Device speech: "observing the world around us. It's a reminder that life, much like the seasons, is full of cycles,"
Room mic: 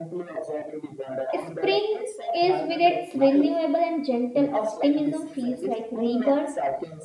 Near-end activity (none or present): present